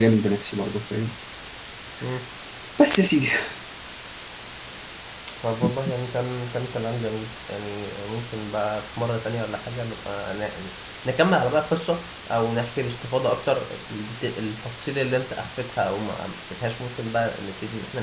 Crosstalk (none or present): none